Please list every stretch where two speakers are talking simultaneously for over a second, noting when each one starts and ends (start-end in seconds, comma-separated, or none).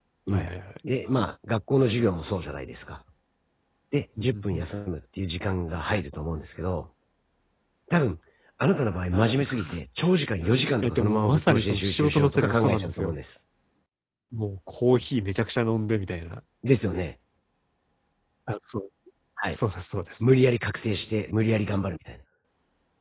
10.8-13.2